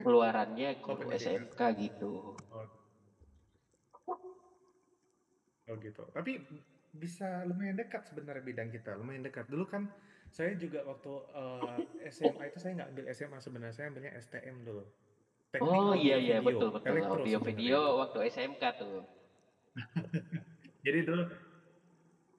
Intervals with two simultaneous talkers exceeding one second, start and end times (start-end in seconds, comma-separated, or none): 15.6-17.9